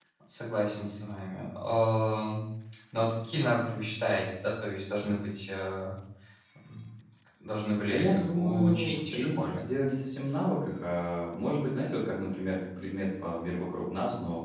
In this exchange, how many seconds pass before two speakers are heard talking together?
7.9 s

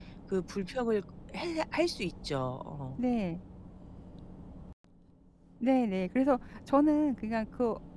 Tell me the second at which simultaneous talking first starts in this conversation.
none

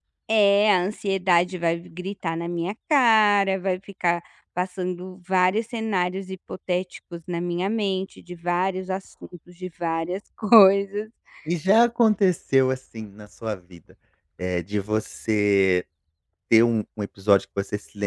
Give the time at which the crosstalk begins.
none

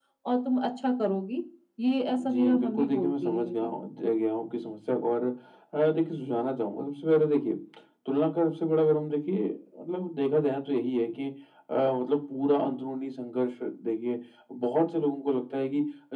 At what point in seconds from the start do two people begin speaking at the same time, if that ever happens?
2.2 s

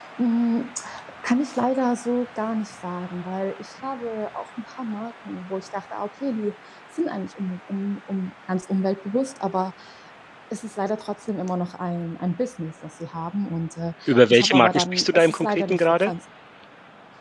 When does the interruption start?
14.1 s

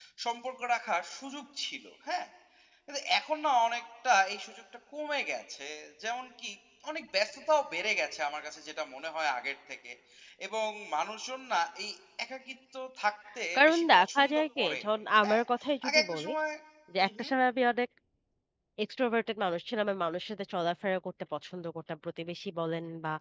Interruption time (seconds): 13.6 s

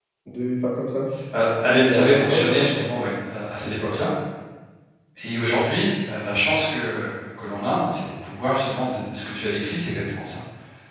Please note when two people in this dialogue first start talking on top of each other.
1.6 s

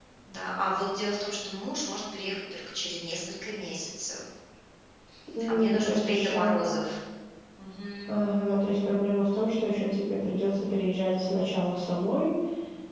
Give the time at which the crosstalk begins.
5.5 s

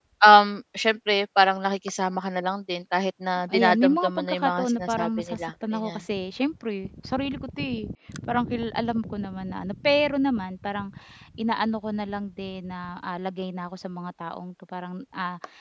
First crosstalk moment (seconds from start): 3.5 s

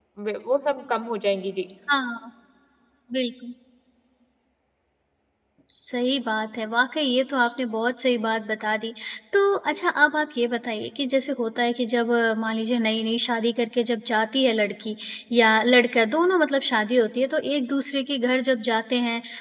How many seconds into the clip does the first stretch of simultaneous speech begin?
none

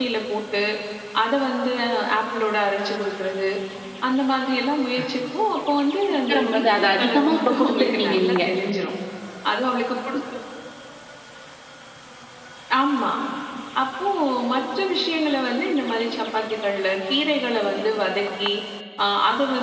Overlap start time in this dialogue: 6.1 s

